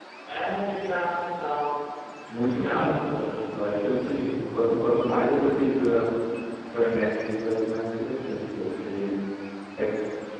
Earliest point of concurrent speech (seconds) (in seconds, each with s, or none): 2.5 s